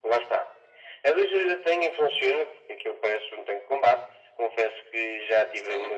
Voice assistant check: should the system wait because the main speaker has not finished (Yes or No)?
Yes